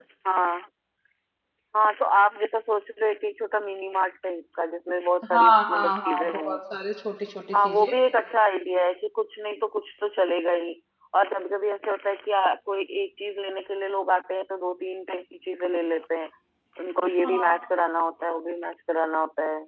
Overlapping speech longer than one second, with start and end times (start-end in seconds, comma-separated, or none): 5.3-6.6